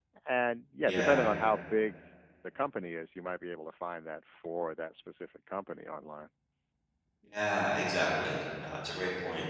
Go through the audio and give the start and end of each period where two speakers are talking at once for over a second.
none

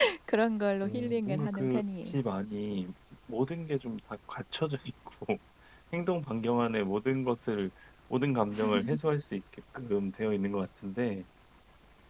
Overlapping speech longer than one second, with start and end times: 0.8-2.1

